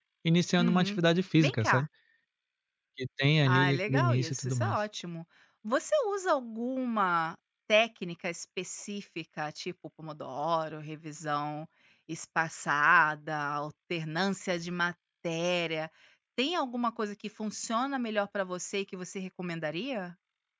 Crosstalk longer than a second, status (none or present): present